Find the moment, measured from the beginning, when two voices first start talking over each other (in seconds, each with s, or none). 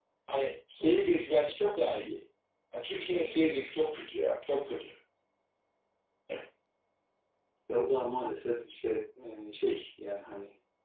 none